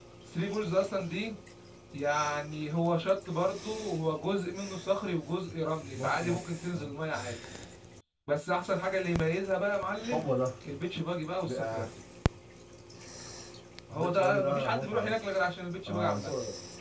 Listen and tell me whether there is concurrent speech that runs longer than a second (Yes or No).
Yes